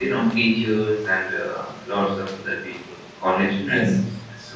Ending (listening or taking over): taking over